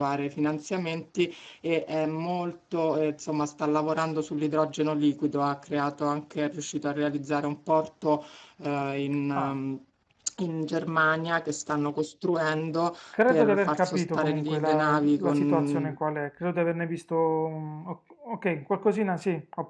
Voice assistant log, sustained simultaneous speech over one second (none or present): present